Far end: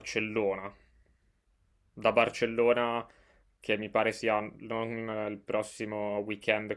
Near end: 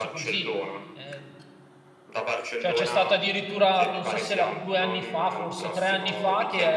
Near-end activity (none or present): present